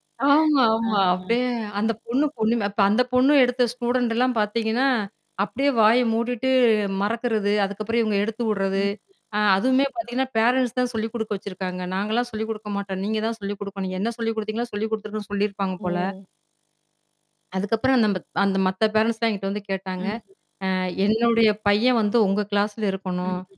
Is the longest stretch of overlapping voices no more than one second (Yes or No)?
Yes